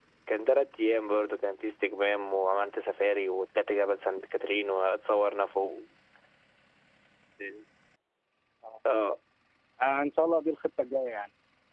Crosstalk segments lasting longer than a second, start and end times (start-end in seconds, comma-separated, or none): none